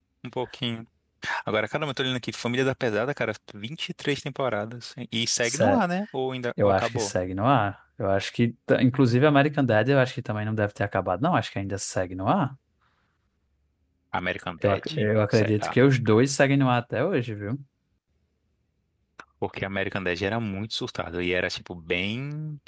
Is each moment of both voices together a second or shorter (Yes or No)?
Yes